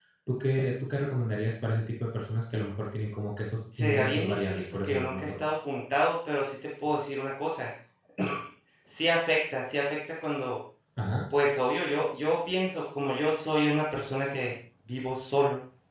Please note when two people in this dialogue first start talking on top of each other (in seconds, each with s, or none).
3.7 s